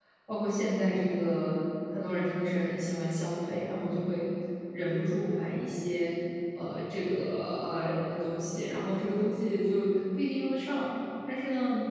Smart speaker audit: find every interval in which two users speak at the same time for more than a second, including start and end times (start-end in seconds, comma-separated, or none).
none